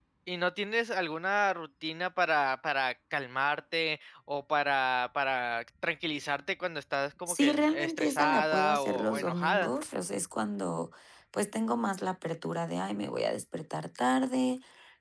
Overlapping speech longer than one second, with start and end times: 7.3-9.7

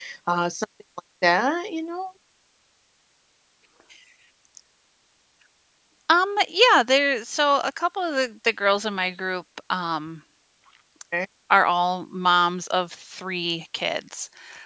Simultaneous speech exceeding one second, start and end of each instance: none

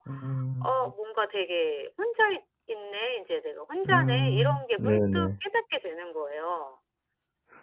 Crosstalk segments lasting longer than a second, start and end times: 3.9-5.3

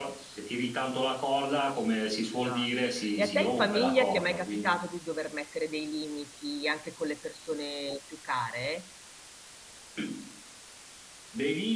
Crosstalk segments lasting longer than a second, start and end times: 2.3-4.7

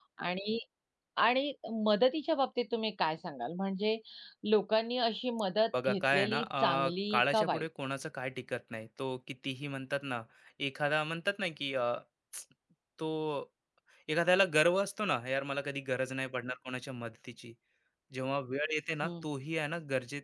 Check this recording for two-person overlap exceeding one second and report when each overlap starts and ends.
5.8-7.6

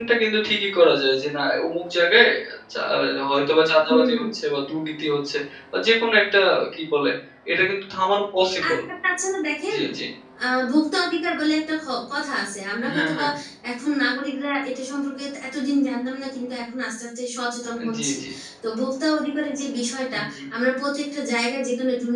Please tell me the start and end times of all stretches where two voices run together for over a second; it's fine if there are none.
none

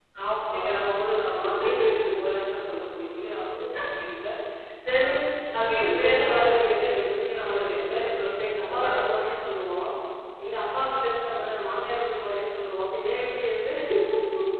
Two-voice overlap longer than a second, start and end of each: 5.5-7.7

